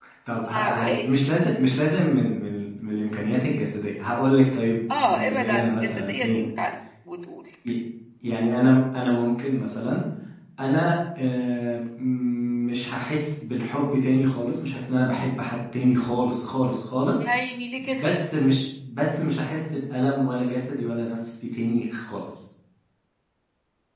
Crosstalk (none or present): present